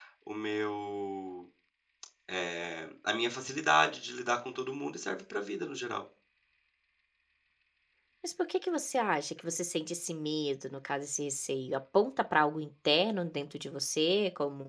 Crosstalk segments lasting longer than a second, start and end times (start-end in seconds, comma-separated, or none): none